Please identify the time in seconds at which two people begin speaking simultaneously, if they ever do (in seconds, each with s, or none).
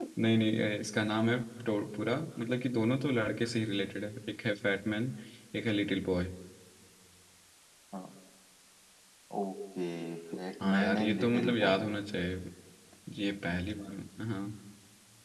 10.6 s